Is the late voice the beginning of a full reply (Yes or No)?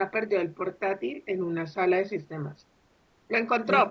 No